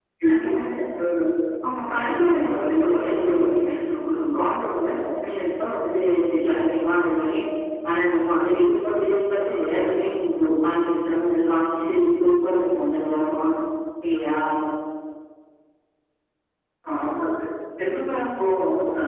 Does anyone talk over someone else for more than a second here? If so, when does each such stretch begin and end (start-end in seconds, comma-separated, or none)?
1.9-3.4